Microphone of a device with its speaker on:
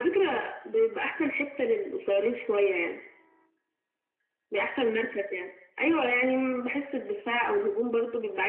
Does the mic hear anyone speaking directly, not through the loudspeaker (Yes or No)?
No